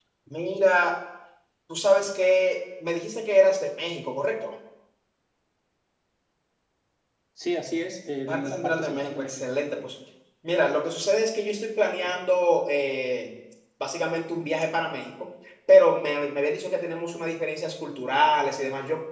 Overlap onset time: 8.3 s

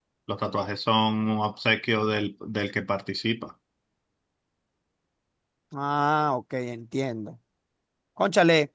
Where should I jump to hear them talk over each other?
none

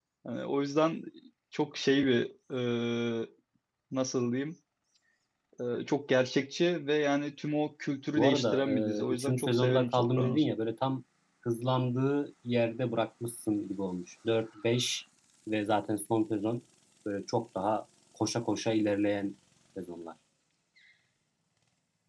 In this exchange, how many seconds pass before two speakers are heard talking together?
8.2 s

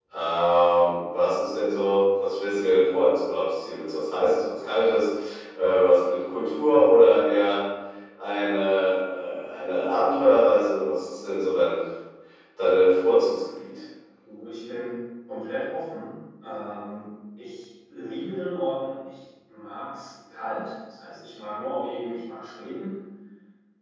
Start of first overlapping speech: none

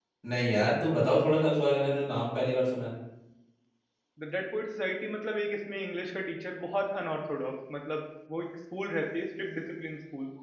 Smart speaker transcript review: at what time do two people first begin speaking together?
none

